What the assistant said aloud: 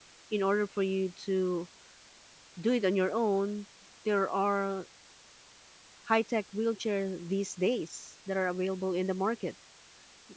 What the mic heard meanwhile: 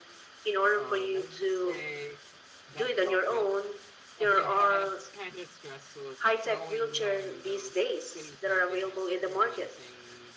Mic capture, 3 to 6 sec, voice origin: both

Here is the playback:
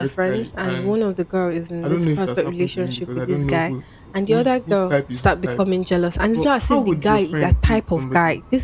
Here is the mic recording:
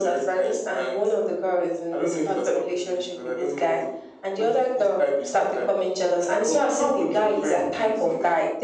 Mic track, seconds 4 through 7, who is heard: echo only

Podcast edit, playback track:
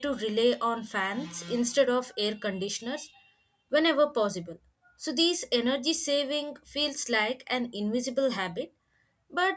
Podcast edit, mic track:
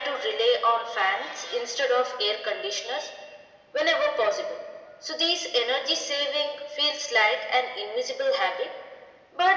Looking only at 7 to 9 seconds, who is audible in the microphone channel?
echo only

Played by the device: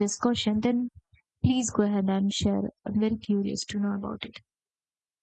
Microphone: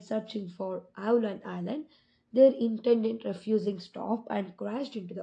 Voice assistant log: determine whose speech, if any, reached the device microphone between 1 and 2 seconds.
user only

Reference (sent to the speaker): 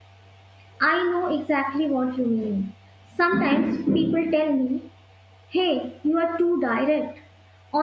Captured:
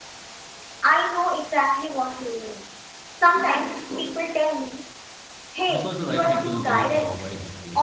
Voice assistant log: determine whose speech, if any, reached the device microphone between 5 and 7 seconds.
both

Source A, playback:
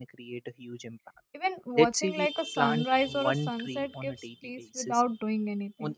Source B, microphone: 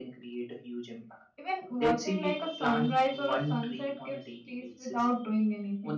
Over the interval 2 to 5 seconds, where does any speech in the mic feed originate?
echo only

